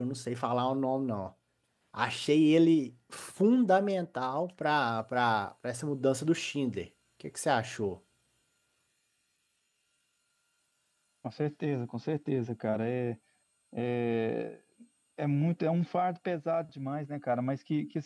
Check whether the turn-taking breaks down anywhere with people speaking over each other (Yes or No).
No